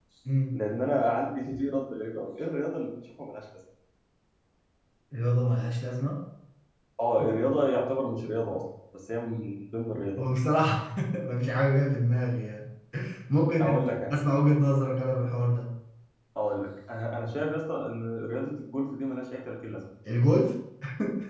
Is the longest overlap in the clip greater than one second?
No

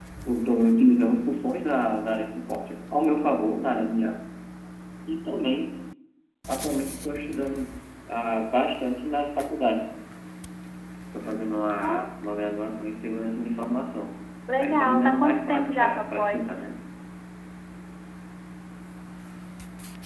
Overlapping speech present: Yes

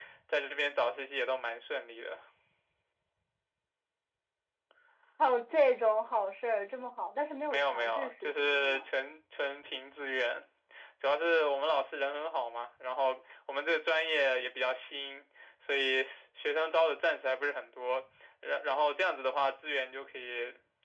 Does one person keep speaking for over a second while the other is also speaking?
Yes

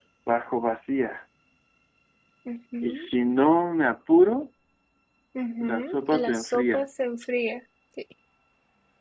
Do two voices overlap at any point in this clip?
Yes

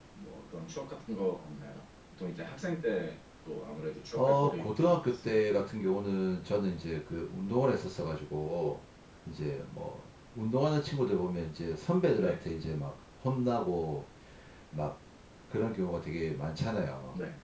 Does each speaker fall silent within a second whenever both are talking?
No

